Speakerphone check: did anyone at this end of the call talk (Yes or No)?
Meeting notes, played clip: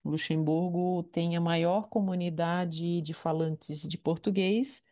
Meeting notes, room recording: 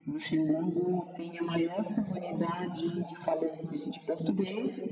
No